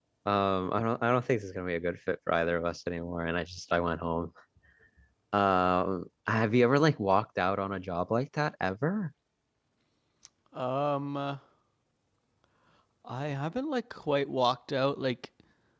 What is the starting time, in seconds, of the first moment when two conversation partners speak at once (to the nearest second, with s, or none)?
none